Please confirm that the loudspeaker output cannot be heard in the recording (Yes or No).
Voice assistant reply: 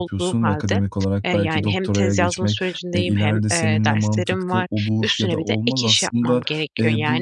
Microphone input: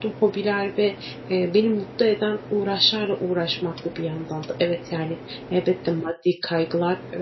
Yes